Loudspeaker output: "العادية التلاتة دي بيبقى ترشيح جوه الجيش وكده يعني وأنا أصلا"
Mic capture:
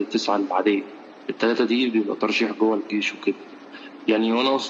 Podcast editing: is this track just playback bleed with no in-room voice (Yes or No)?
Yes